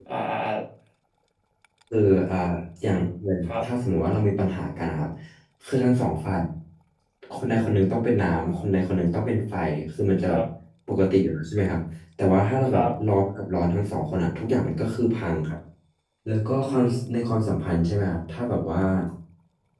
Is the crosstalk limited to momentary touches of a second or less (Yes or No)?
Yes